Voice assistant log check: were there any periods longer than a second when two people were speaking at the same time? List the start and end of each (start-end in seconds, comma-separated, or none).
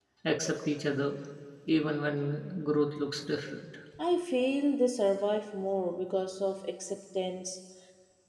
none